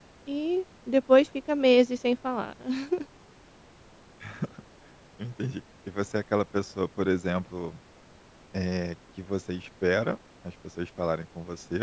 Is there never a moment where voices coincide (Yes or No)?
Yes